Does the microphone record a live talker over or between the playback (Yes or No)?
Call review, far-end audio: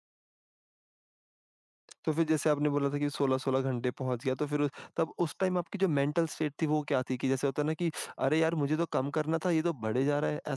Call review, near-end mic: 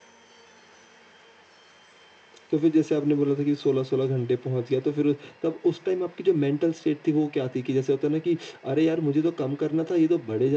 No